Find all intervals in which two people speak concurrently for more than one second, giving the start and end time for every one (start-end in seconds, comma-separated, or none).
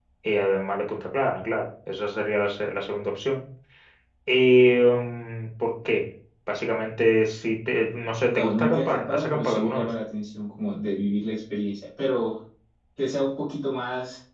8.2-9.9